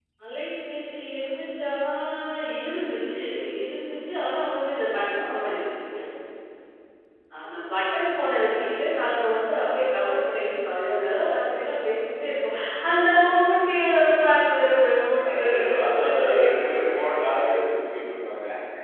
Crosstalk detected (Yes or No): Yes